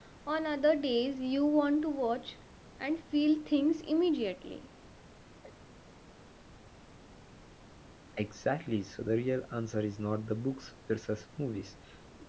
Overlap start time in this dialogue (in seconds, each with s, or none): none